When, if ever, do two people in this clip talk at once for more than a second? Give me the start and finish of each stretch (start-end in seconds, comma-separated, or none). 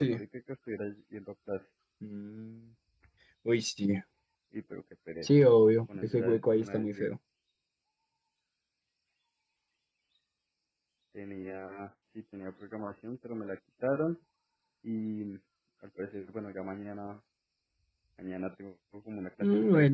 5.9-7.2